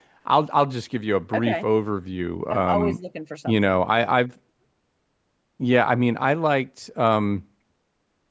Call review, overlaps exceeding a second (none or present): none